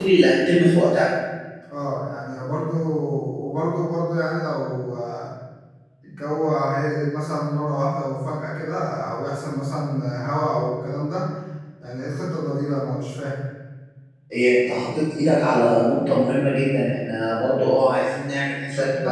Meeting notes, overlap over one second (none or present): none